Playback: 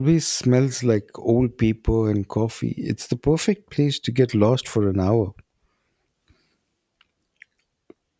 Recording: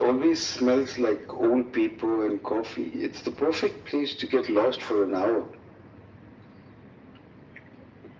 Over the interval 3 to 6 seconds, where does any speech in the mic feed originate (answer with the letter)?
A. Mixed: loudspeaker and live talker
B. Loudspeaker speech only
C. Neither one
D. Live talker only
B